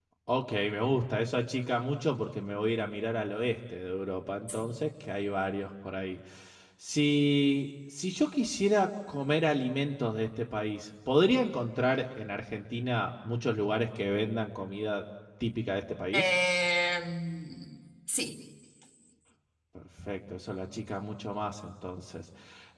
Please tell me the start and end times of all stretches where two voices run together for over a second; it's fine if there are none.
none

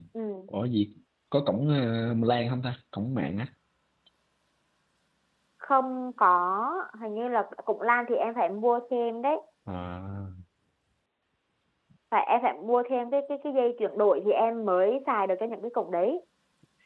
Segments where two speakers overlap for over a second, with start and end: none

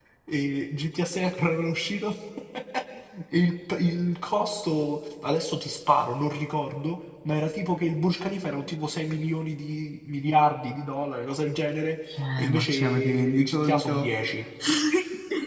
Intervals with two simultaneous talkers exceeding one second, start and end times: 12.4-14.1

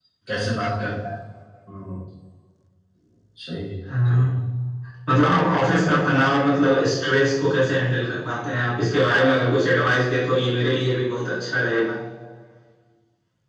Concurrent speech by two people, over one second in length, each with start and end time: none

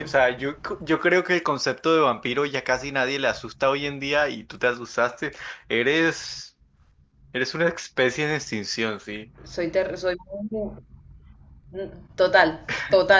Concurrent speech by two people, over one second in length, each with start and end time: none

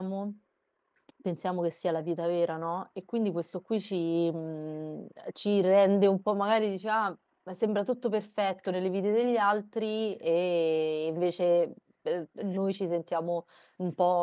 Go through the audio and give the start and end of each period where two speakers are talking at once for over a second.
none

